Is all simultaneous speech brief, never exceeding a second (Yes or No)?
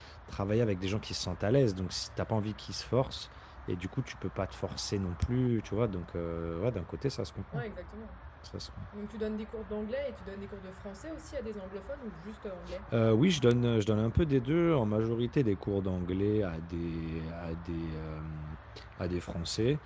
Yes